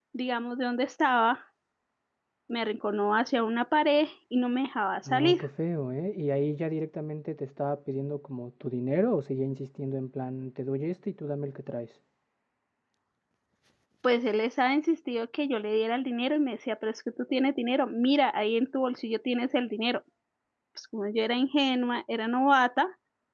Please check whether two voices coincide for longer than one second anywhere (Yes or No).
No